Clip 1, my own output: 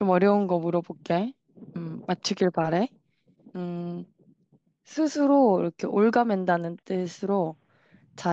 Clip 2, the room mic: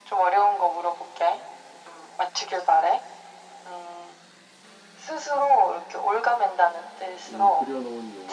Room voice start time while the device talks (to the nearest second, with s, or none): 7 s